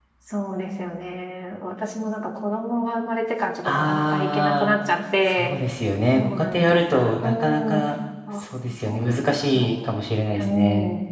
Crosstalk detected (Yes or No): Yes